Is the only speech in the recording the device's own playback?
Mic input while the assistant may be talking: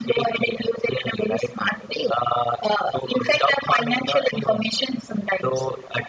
Yes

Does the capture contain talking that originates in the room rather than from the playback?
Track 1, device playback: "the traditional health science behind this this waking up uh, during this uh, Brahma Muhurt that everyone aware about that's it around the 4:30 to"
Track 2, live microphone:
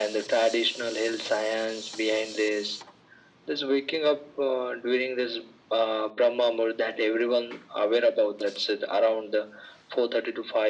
No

